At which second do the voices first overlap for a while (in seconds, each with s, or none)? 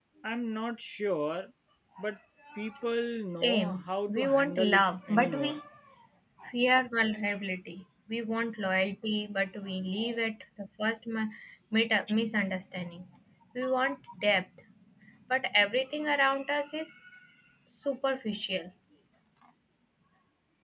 3.4 s